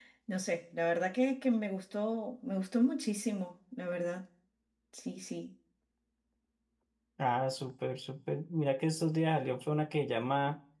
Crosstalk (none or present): none